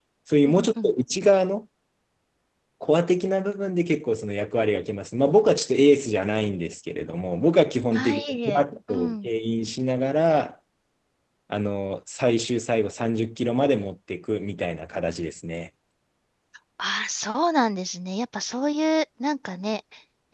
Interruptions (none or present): present